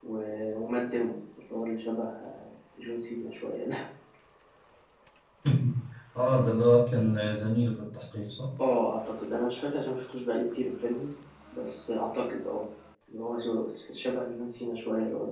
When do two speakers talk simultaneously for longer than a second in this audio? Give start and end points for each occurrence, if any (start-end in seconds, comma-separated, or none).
none